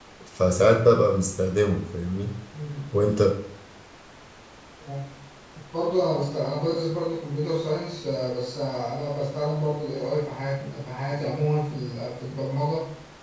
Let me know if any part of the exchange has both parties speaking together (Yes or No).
No